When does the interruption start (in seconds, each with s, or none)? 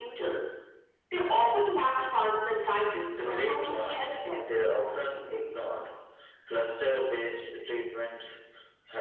3.1 s